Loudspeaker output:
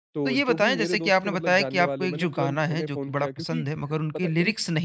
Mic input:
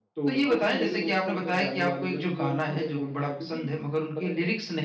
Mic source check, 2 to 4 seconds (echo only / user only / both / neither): echo only